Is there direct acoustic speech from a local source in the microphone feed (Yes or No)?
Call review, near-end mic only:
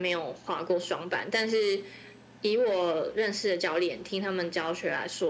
No